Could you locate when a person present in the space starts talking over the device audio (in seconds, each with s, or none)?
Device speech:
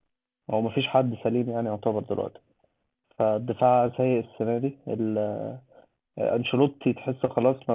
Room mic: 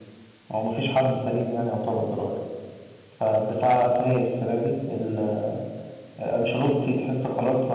none